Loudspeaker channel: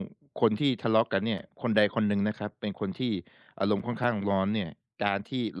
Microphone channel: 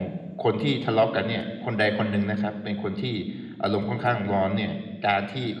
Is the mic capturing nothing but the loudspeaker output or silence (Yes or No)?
Yes